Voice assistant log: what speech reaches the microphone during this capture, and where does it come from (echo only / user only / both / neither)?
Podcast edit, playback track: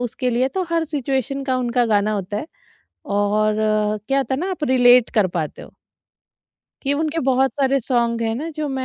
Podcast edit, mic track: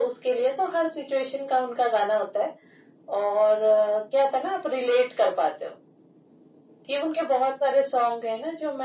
echo only